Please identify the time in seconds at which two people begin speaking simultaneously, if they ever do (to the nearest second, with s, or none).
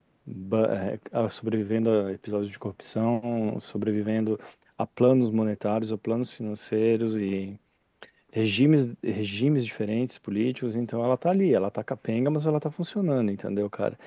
none